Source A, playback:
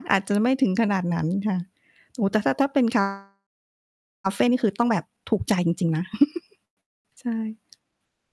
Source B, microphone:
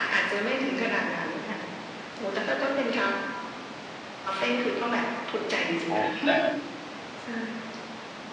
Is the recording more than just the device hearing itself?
Yes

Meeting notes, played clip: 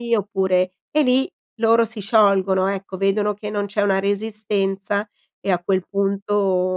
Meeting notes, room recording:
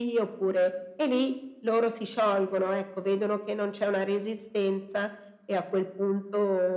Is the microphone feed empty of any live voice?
Yes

